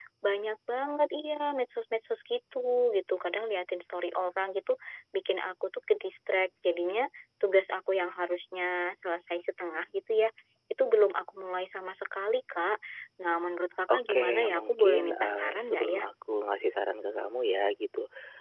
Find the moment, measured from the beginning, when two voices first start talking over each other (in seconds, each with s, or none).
13.9 s